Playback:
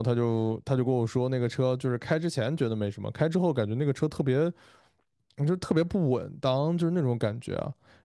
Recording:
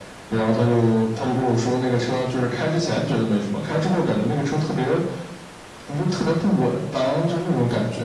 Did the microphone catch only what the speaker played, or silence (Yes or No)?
Yes